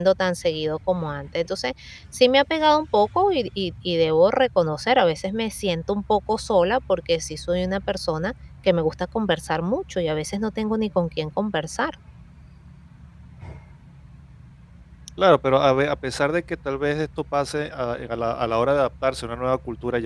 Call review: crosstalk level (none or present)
none